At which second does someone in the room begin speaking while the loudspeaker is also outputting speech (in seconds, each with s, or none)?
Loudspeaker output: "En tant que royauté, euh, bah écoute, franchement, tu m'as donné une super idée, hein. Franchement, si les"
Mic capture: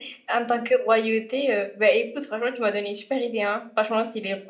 none